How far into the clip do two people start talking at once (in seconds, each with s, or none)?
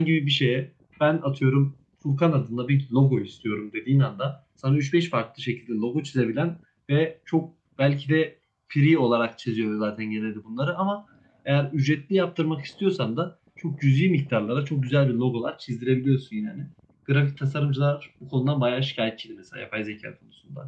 none